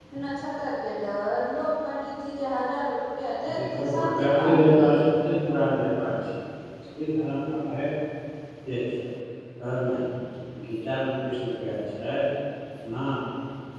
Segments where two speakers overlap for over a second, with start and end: 3.5-5.0

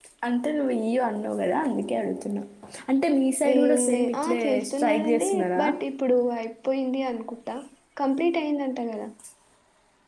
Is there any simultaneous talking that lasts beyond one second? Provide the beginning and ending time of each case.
3.5-5.6

